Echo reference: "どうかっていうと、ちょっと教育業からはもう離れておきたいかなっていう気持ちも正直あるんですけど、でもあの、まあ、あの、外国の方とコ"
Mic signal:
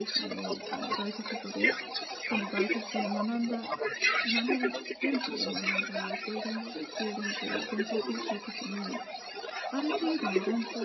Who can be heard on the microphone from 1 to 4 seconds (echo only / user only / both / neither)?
both